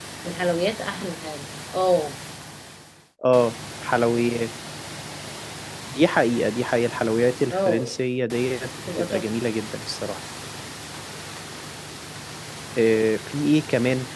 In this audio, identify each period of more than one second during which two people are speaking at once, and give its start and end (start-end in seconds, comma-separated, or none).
none